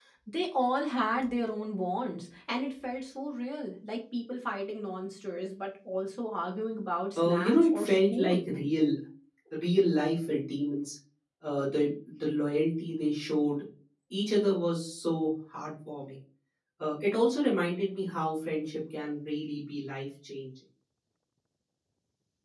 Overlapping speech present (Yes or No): Yes